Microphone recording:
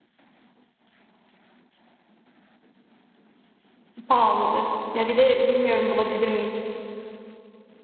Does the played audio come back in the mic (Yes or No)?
No